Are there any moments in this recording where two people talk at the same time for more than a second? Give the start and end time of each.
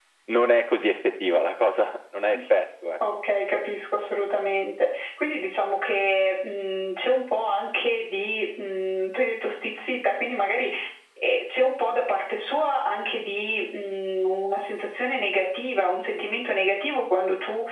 none

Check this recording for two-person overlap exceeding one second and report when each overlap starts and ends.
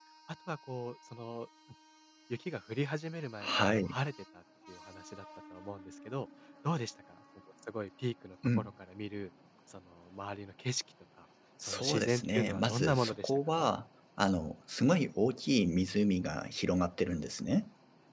11.6-13.7

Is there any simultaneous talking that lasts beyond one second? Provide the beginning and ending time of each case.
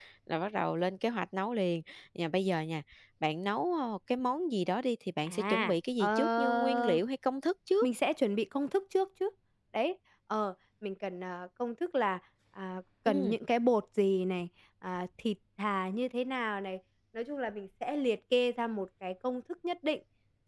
5.2-7.0

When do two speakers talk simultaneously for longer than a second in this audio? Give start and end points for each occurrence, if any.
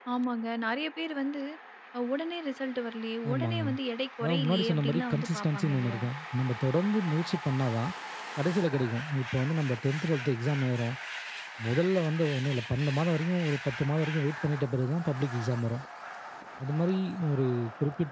4.2-6.0

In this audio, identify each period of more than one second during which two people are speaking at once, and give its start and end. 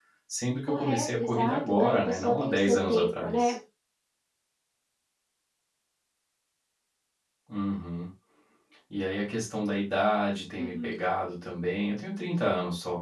0.7-3.5

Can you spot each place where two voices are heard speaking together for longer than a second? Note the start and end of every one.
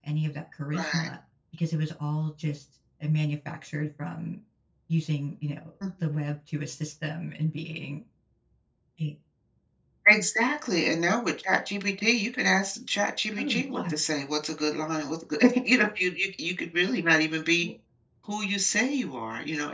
none

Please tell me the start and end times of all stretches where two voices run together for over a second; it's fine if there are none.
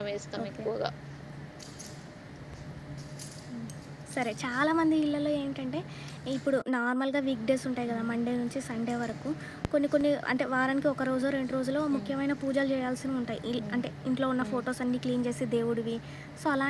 none

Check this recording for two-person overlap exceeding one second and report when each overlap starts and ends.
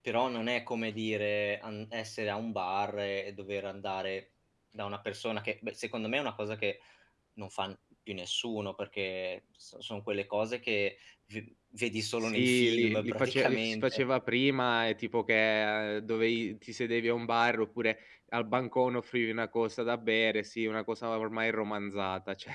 12.2-14.0

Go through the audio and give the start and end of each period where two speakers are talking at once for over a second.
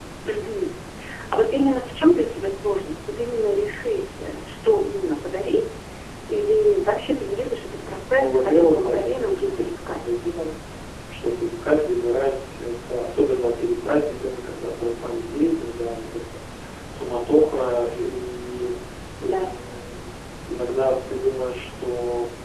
8.2-10.1

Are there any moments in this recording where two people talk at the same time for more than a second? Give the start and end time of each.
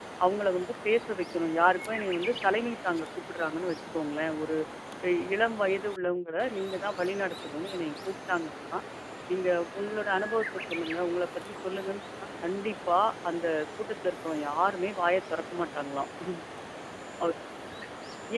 none

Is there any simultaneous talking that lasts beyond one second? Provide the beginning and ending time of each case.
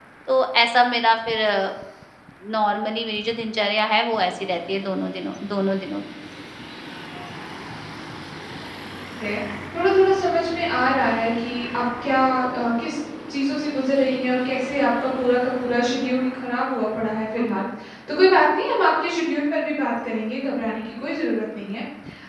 none

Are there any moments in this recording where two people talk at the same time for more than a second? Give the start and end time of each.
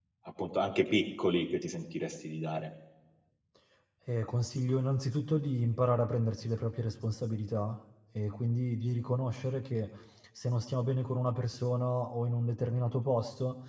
none

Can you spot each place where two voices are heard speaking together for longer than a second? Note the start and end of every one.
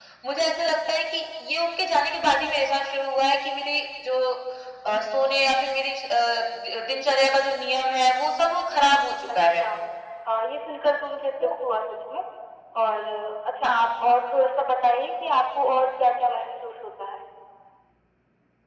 none

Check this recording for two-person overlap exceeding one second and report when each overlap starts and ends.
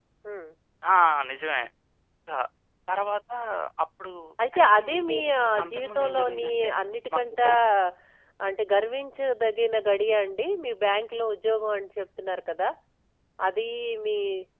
4.6-6.7

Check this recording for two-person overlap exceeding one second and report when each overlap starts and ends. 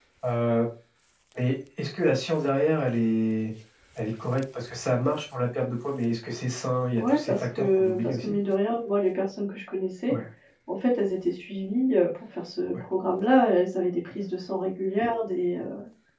7.0-8.3

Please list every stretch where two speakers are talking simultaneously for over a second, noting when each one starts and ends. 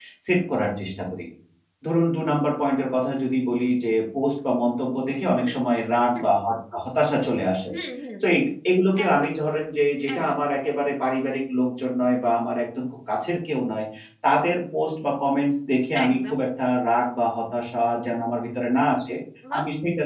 none

